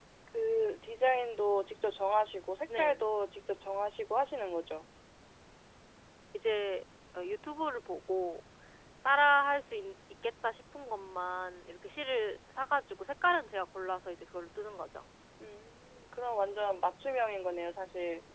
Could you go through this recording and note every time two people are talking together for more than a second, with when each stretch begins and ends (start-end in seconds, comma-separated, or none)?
none